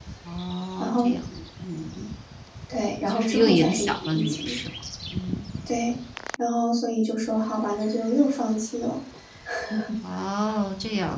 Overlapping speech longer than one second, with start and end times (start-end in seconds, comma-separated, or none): 3.1-4.6